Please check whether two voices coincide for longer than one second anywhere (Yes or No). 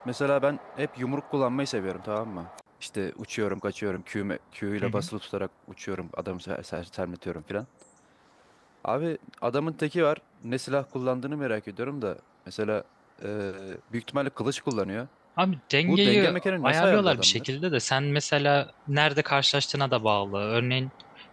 Yes